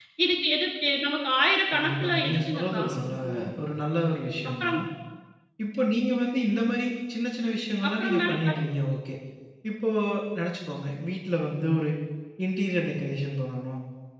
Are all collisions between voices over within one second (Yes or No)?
No